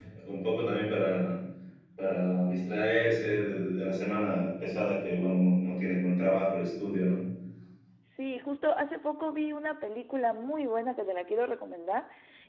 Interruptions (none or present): none